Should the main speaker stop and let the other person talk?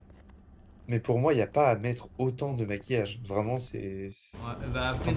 Yes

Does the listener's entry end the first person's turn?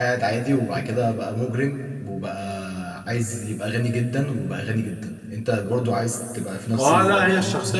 Yes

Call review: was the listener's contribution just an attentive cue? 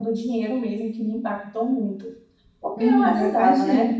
No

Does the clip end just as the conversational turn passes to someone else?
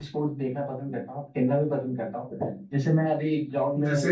No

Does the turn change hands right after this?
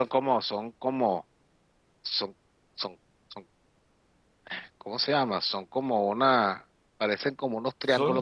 Yes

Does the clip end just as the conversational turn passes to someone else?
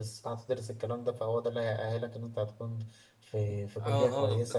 Yes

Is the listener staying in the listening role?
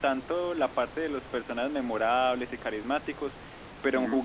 Yes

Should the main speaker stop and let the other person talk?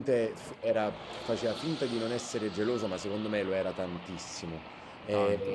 No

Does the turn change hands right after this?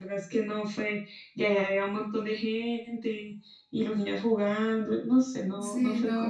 Yes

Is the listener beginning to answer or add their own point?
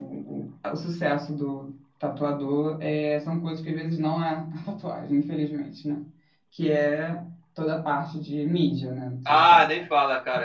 Yes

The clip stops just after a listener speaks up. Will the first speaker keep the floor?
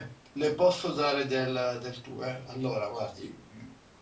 Yes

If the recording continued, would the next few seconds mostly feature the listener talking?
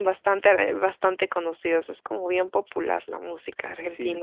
Yes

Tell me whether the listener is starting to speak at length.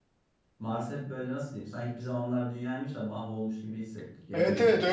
Yes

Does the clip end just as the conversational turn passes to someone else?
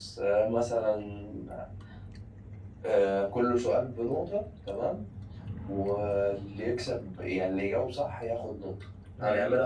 No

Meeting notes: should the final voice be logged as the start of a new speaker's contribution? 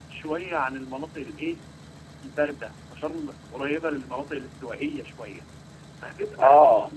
No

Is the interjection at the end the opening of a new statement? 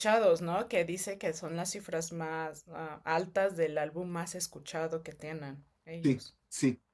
Yes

